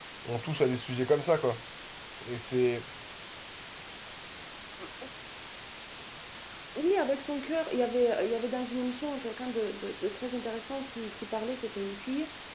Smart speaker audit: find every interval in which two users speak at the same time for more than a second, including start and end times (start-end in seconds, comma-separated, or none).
none